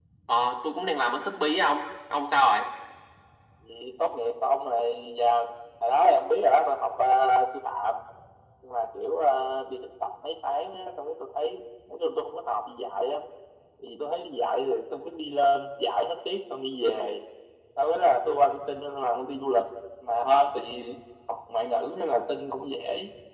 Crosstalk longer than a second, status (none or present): none